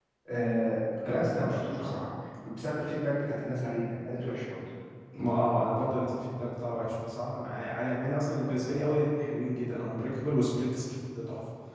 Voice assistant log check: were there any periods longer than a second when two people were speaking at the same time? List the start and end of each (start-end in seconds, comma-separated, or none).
none